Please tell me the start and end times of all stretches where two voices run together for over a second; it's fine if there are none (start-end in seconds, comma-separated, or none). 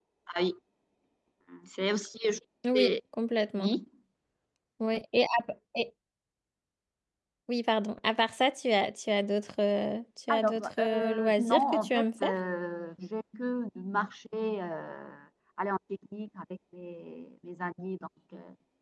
10.3-12.3